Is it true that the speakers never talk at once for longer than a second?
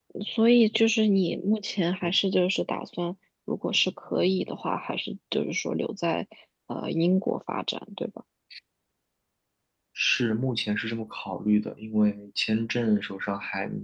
Yes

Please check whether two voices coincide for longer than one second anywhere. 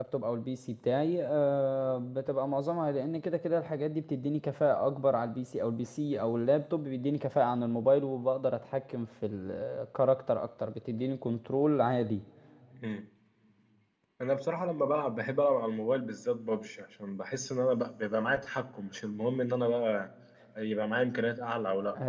No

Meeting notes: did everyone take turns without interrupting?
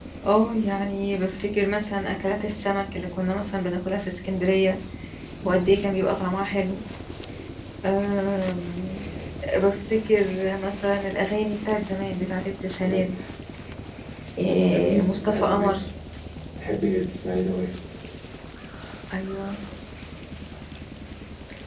No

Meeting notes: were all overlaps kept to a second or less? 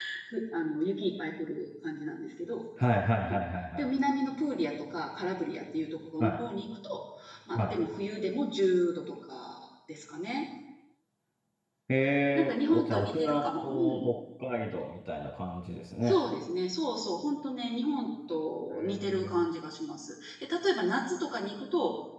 No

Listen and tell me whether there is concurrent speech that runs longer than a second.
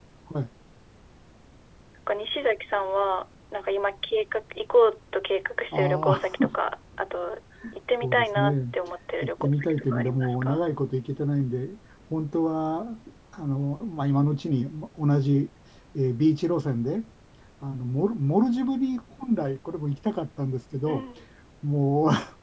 Yes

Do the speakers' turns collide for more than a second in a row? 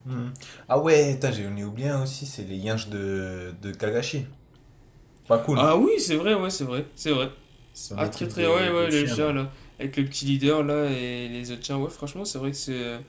Yes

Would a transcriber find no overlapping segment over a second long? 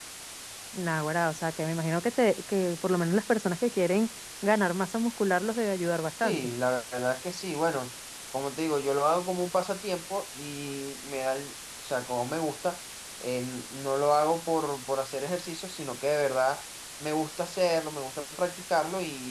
Yes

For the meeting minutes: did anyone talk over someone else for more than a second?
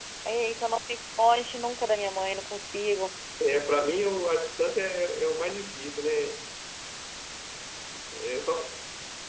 No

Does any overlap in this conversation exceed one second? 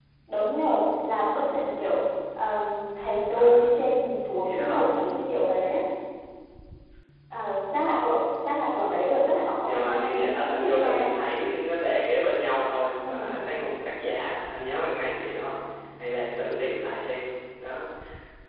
Yes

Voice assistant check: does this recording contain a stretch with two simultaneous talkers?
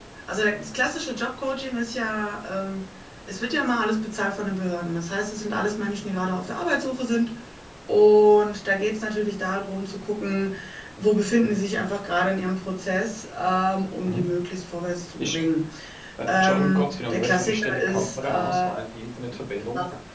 Yes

